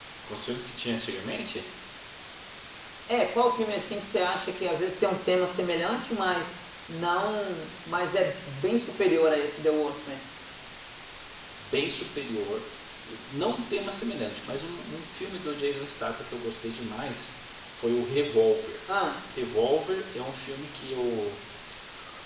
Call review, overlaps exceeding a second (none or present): none